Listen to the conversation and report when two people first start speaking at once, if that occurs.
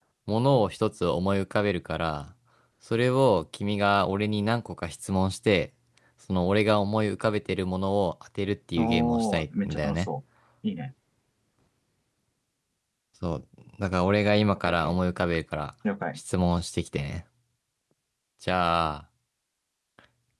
8.8 s

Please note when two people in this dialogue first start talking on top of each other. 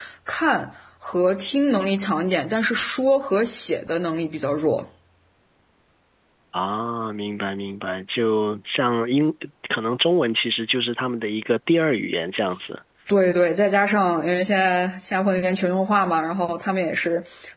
none

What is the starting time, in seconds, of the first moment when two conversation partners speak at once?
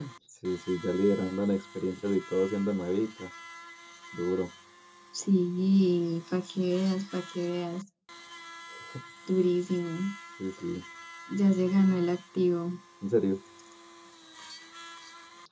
none

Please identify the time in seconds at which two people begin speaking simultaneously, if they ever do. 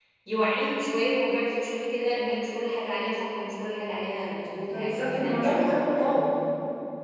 4.7 s

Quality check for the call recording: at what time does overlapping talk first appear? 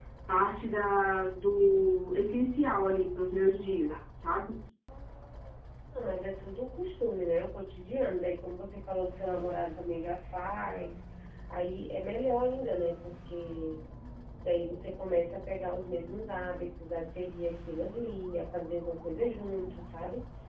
none

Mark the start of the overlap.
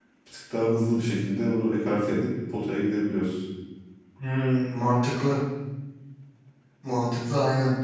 none

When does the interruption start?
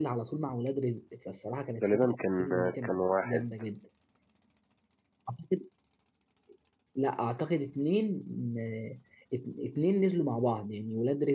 1.8 s

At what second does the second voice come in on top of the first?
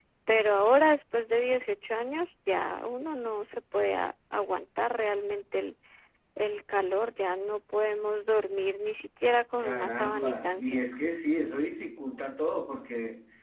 9.6 s

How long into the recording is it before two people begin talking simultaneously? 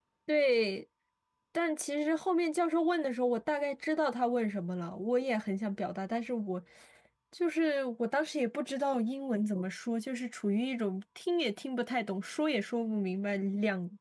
none

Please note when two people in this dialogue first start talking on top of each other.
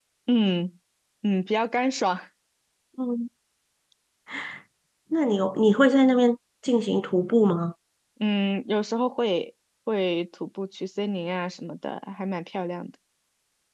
none

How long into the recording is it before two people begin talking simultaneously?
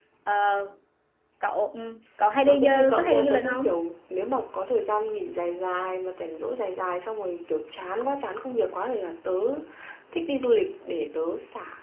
2.4 s

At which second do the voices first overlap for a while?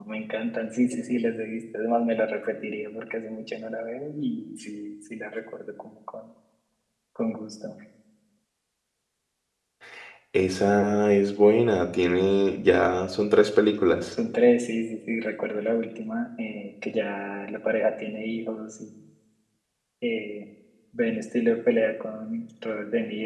none

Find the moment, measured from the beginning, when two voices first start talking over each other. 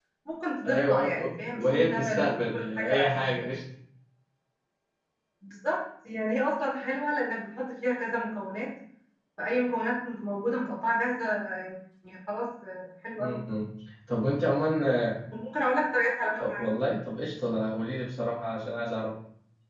0.7 s

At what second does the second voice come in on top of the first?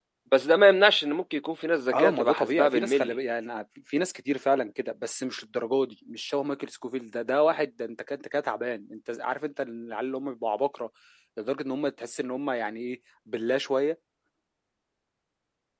1.9 s

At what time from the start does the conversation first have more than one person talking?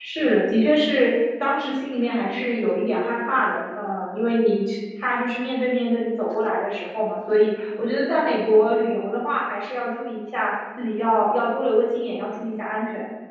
none

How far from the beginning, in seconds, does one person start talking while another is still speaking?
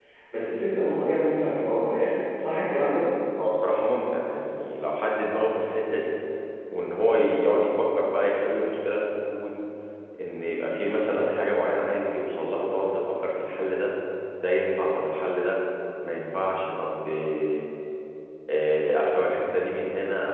none

